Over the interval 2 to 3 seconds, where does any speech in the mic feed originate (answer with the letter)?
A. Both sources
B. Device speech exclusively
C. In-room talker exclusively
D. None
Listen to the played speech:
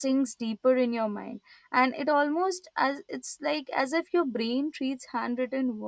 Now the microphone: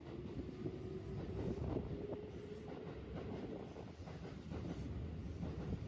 D